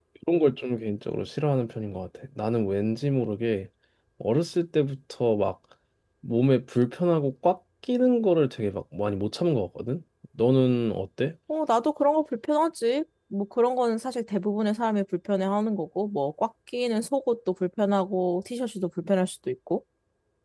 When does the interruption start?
none

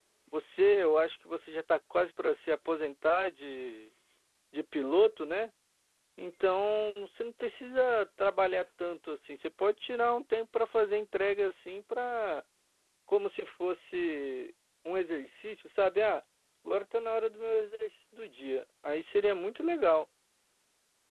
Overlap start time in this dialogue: none

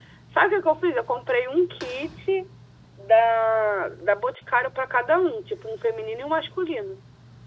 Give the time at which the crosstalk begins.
none

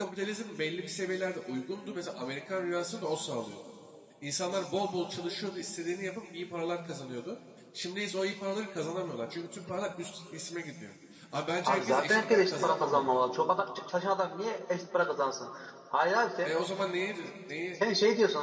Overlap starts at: 12 s

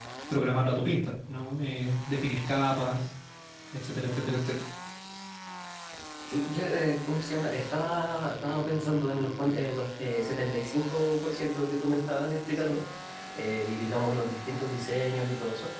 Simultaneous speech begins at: none

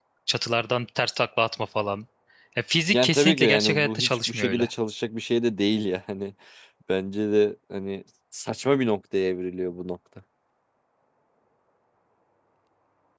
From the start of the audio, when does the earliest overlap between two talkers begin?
3 s

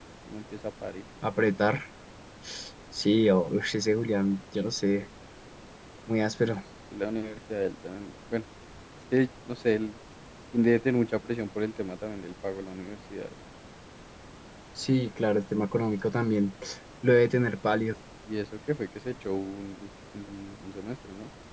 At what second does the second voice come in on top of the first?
none

